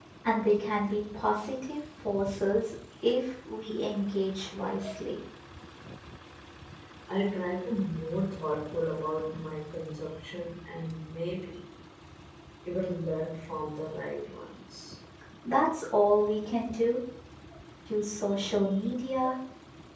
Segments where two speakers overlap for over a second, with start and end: none

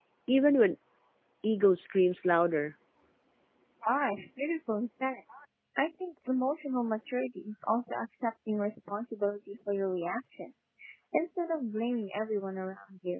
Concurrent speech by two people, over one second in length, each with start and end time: none

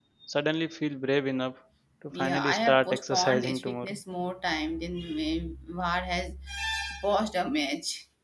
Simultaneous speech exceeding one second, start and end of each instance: 2.2-4.0

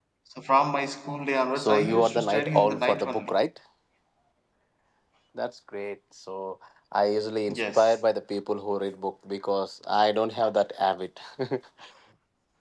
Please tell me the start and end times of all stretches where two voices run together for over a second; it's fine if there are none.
1.6-3.3

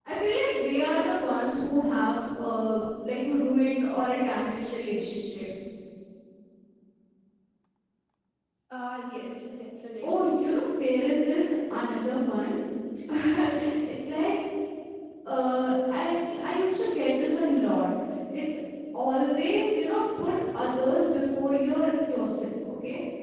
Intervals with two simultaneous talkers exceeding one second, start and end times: none

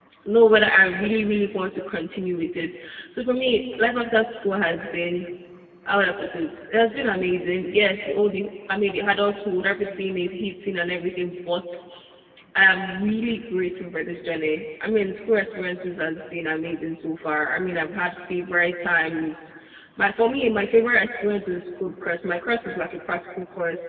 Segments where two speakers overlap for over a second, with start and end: none

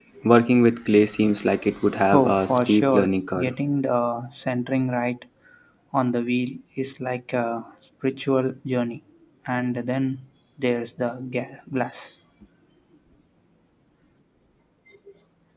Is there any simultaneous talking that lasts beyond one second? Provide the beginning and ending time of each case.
2.1-3.5

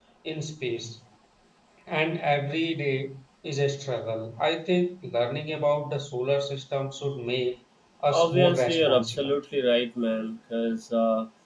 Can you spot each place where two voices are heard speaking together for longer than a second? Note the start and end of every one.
8.1-9.3

